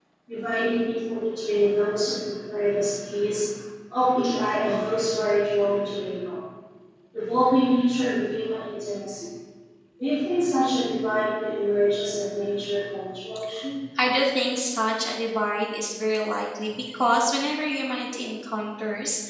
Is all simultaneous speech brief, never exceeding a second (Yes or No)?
Yes